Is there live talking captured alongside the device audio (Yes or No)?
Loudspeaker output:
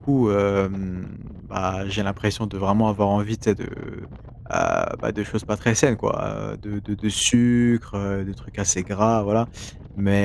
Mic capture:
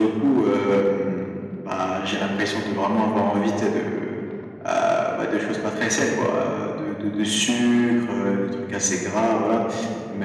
No